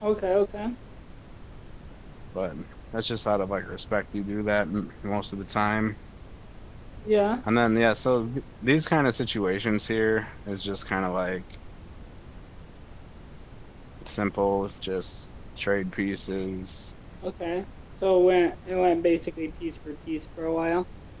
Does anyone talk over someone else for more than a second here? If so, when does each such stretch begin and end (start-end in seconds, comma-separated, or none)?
none